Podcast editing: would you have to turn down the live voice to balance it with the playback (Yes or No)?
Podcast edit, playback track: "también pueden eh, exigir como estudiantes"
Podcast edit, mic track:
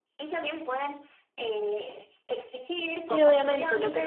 Yes